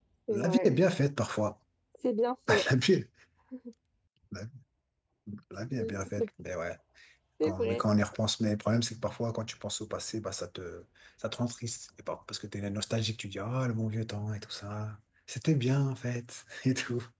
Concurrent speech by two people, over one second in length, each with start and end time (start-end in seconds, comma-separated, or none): none